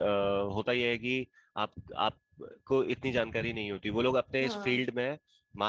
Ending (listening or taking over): listening